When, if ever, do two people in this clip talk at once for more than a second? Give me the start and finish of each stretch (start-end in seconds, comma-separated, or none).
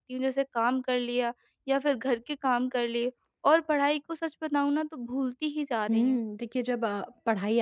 none